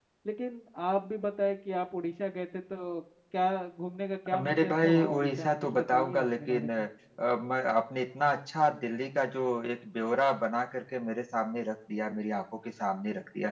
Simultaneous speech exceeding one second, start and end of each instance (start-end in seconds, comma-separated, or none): 4.3-6.7